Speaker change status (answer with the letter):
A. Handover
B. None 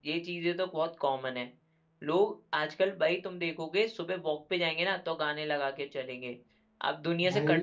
B